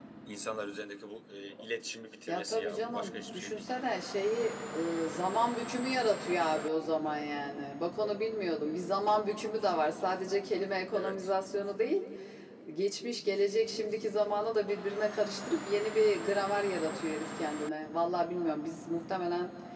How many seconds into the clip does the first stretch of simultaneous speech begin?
2.3 s

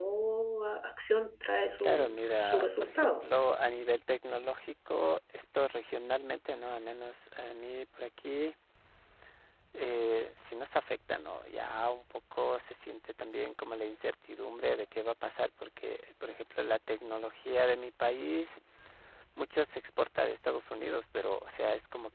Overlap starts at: 1.8 s

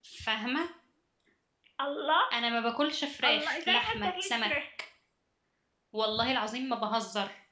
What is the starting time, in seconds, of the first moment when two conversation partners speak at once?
3.2 s

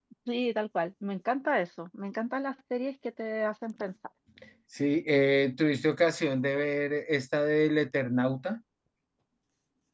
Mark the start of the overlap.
none

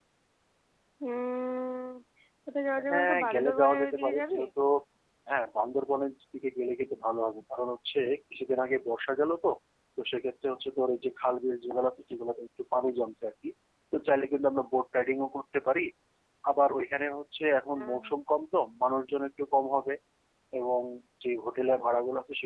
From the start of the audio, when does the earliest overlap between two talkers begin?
2.9 s

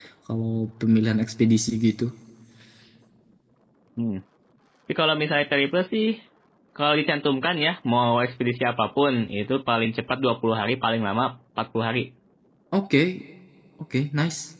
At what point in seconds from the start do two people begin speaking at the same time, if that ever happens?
none

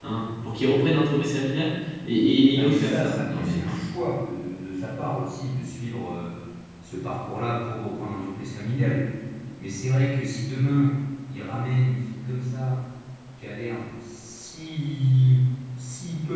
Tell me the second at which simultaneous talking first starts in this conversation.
2.5 s

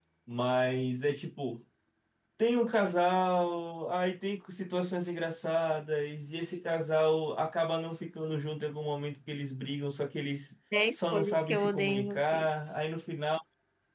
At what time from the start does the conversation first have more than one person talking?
10.7 s

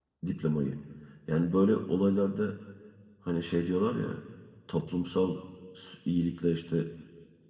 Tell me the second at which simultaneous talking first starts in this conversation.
none

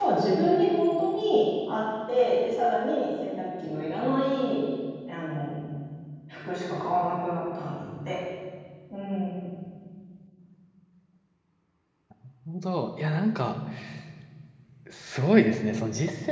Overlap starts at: none

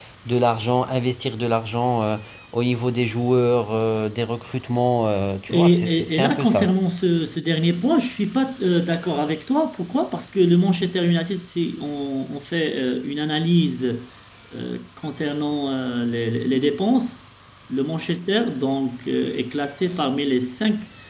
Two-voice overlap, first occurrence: 5.5 s

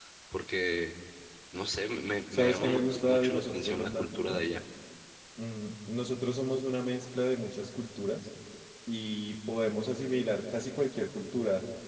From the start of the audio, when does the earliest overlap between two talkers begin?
2.3 s

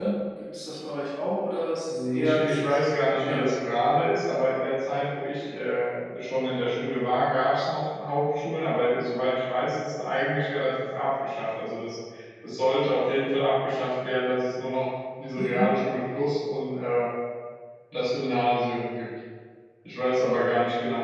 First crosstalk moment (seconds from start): 1.9 s

